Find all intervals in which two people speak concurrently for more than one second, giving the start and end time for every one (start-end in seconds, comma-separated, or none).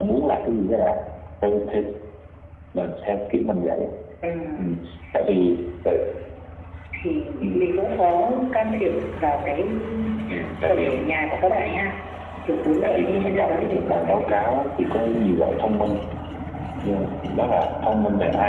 12.8-14.4